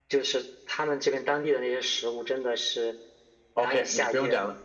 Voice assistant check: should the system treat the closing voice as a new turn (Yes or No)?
Yes